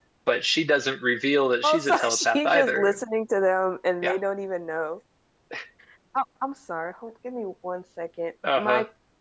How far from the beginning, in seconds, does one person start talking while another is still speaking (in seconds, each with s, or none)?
1.6 s